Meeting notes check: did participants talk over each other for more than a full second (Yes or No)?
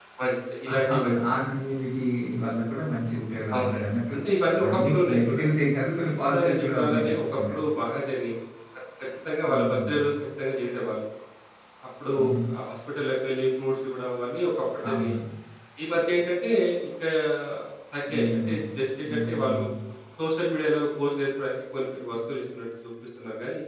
Yes